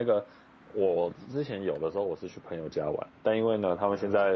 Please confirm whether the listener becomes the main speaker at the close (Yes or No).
No